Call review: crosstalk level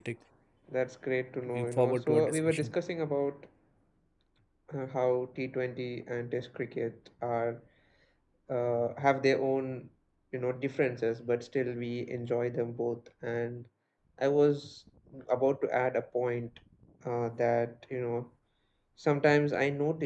present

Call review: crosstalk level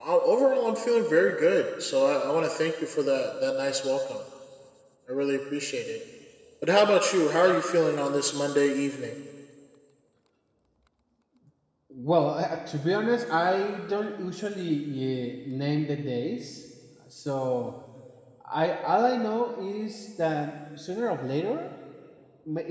none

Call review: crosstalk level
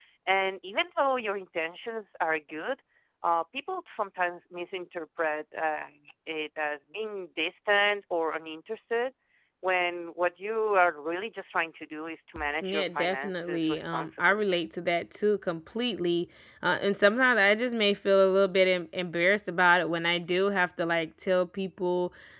present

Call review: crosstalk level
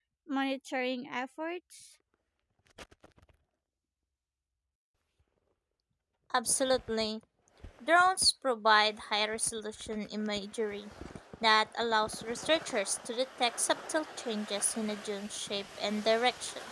none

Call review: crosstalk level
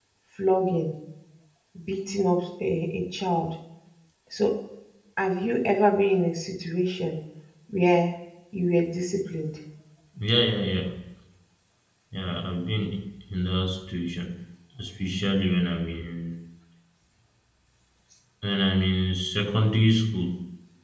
none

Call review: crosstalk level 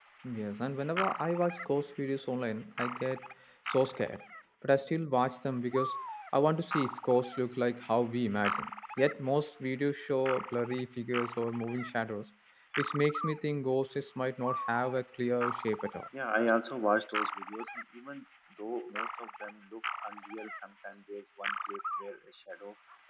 none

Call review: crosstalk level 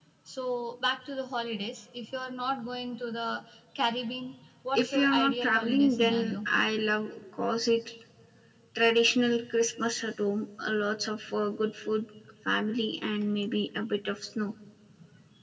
present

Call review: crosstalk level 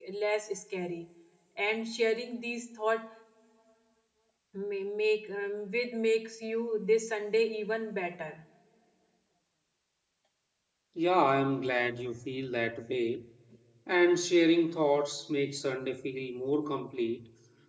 none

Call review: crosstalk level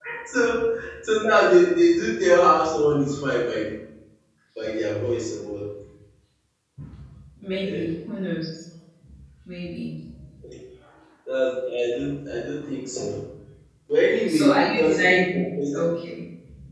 present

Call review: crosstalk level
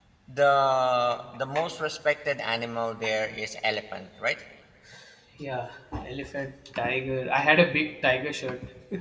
none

